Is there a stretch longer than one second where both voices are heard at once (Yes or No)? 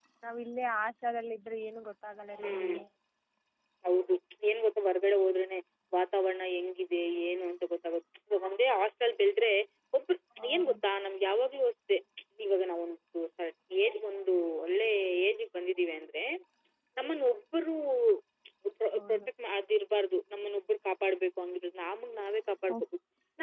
No